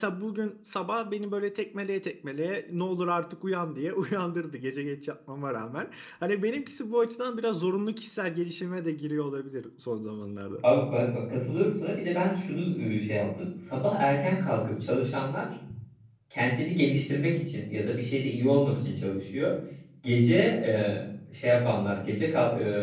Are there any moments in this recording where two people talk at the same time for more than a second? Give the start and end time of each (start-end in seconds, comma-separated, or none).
none